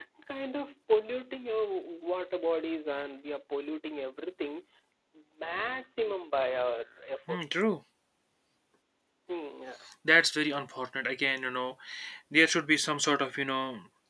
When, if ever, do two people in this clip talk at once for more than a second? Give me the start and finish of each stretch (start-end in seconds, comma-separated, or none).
none